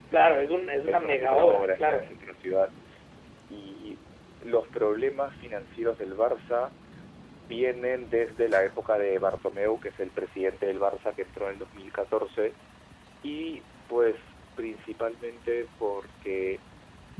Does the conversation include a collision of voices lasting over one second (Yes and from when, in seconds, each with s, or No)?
Yes, from 0.9 s